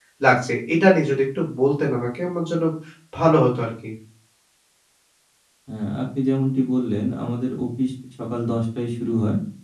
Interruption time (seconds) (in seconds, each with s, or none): none